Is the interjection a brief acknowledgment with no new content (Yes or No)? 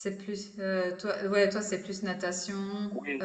No